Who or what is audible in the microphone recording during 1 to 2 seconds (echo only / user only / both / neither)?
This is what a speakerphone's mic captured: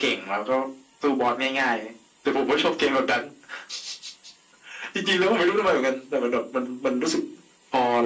echo only